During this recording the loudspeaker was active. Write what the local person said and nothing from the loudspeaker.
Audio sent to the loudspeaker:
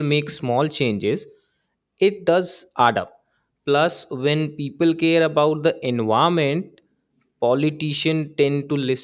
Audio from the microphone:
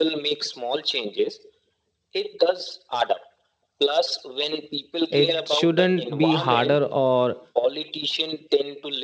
It shouldn't be harder or

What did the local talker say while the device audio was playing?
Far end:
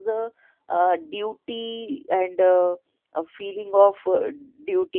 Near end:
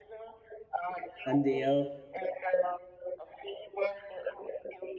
and they are

